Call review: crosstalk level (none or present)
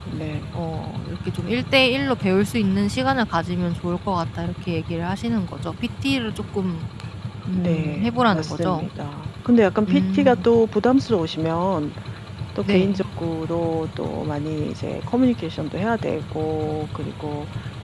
present